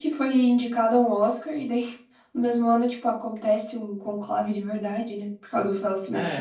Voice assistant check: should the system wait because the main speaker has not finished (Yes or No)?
Yes